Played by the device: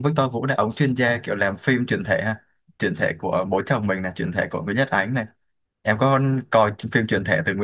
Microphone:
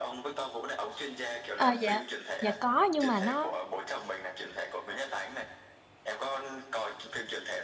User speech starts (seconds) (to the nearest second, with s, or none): 2 s